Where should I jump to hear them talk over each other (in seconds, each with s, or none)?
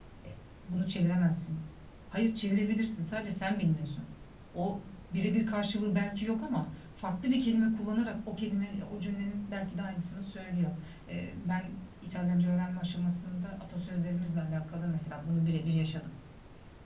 none